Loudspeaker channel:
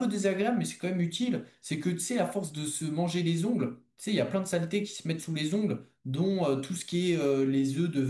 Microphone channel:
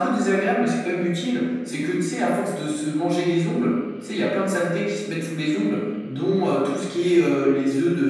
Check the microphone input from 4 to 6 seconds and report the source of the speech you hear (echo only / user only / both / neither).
echo only